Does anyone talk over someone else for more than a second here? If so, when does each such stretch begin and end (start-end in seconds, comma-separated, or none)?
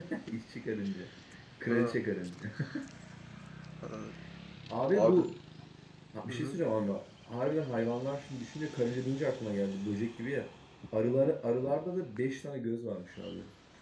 none